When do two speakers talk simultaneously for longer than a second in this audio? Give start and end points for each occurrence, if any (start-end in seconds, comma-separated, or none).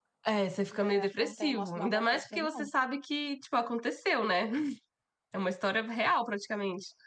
0.7-2.7